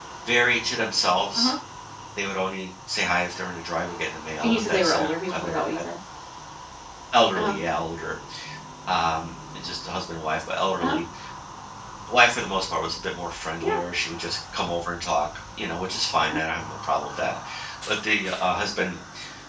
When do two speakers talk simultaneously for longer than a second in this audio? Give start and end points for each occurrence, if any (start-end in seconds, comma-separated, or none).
4.4-5.8